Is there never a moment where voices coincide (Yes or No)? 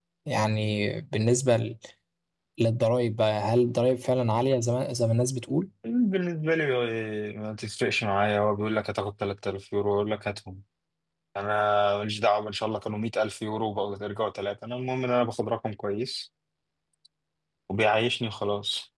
Yes